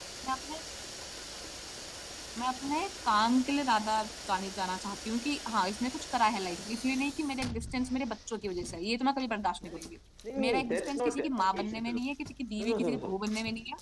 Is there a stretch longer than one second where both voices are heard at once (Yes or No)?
Yes